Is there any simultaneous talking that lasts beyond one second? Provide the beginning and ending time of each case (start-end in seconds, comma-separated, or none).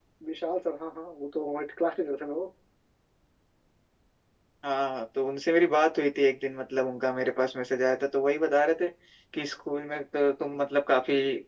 none